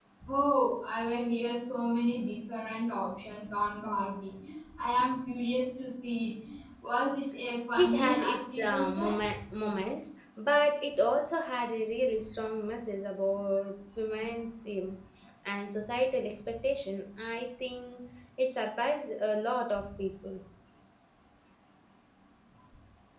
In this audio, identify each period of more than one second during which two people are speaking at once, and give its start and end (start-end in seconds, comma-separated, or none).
7.7-9.1